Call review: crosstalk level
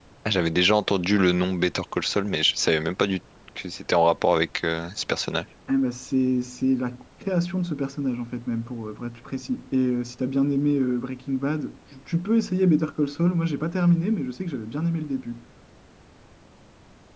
none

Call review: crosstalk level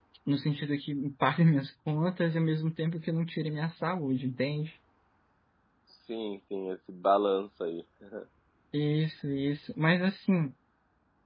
none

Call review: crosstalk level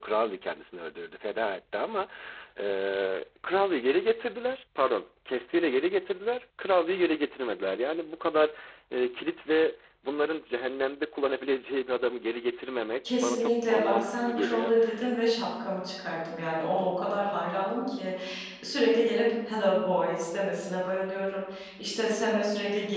present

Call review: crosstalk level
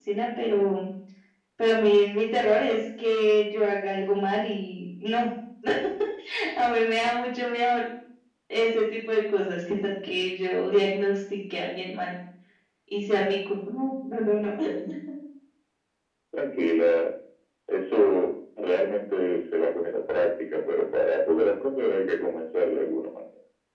none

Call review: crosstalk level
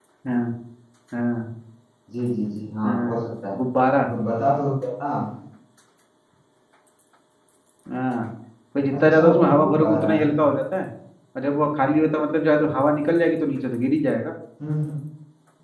present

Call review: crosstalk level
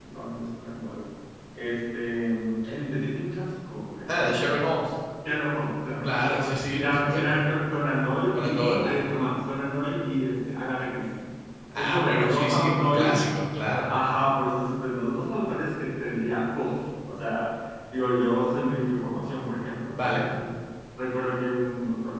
present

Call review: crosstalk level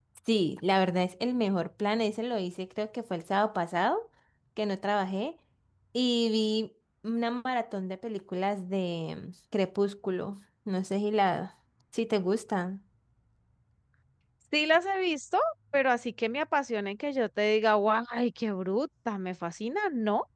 none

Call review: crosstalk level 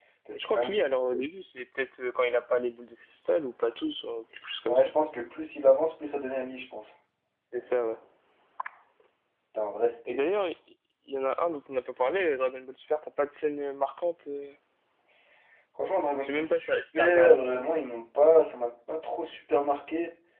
present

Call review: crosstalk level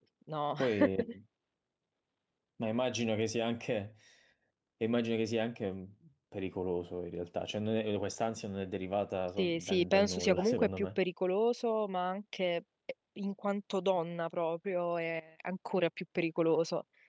present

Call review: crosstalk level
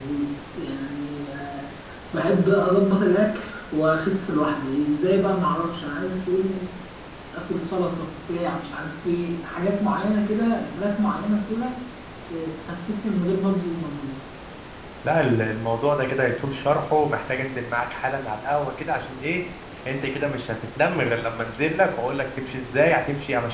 none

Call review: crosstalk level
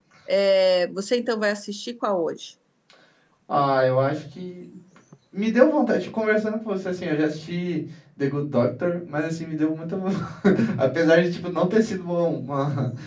none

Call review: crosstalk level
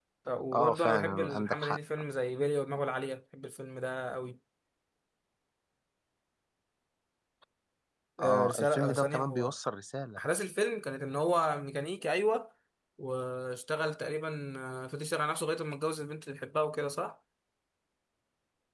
present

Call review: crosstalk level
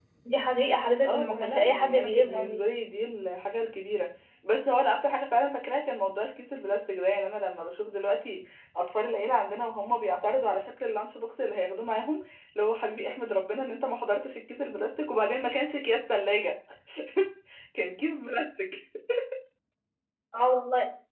present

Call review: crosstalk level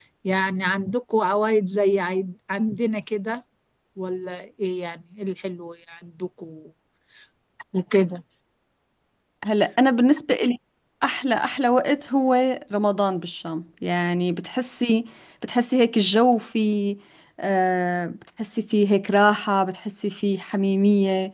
none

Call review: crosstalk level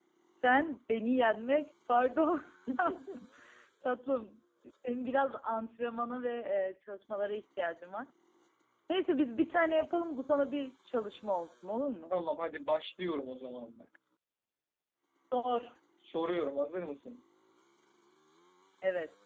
none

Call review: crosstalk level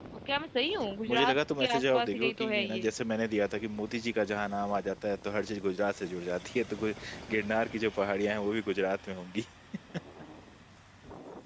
present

